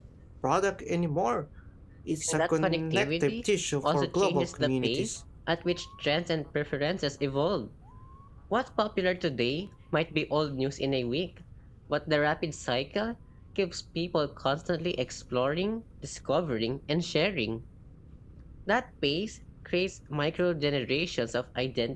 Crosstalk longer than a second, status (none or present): present